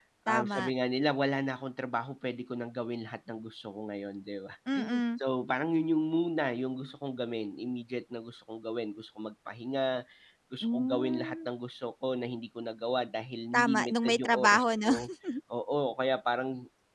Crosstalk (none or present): present